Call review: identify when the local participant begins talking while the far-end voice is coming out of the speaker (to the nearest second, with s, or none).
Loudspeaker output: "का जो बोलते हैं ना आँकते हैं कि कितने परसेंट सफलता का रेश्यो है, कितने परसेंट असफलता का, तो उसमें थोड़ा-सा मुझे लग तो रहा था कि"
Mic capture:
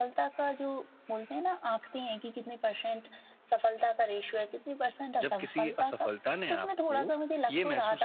5 s